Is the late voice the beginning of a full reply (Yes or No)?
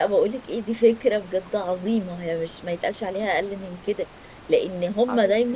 No